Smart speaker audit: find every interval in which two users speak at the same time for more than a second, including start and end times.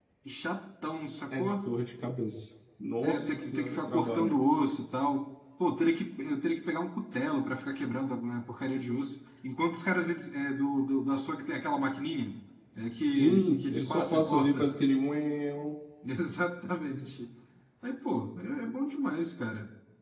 3.0-4.3, 13.1-14.7

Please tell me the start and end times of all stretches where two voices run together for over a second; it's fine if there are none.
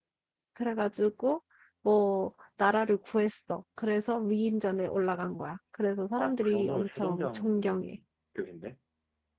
6.2-8.0

